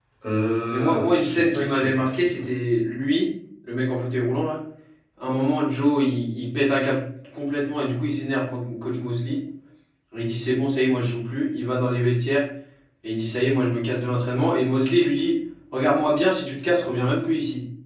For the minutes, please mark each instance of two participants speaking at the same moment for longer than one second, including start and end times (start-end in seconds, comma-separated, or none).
0.7-2.4